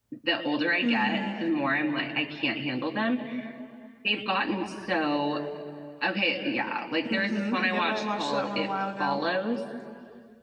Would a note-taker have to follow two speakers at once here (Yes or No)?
Yes